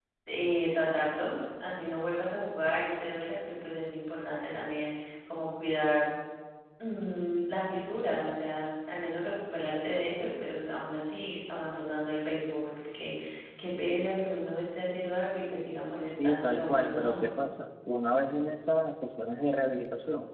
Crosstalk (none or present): present